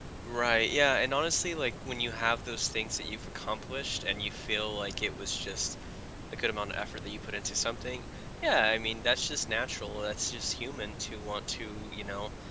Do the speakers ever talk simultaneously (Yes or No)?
No